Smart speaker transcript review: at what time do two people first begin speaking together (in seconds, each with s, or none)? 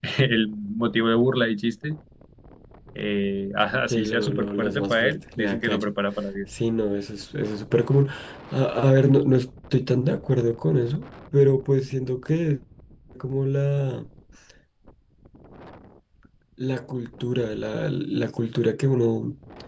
3.9 s